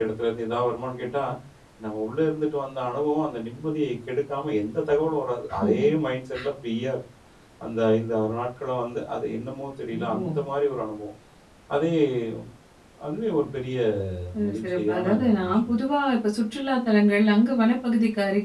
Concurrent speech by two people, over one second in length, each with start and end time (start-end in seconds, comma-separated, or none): 14.4-15.8